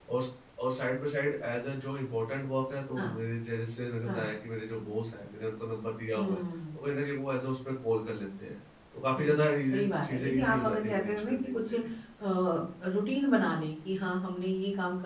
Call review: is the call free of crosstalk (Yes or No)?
No